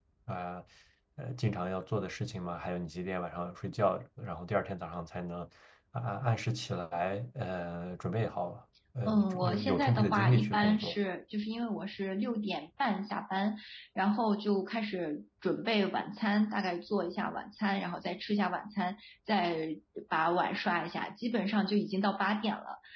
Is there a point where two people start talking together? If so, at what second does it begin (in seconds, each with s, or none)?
9.1 s